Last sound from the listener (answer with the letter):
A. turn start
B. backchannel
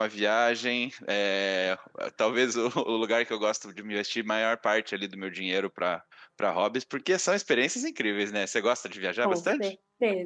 A